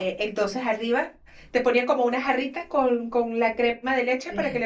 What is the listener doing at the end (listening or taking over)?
listening